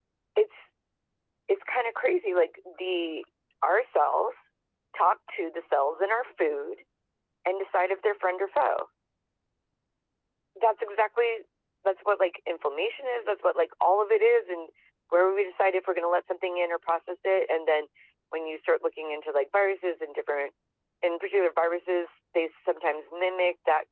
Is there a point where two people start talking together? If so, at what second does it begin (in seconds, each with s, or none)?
none